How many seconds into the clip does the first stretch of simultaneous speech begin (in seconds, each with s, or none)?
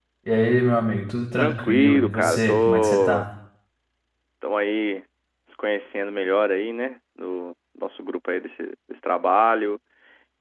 1.4 s